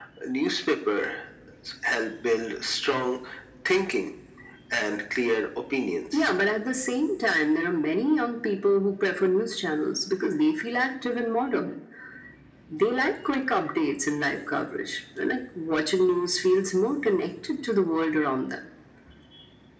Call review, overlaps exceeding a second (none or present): none